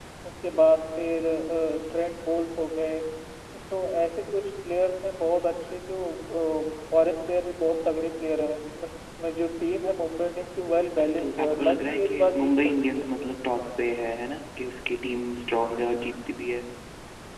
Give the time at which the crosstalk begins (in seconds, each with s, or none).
11.0 s